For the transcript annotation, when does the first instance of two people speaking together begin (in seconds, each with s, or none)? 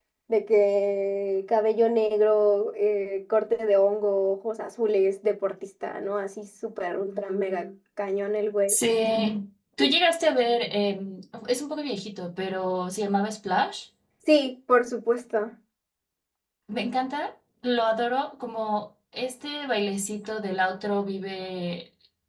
none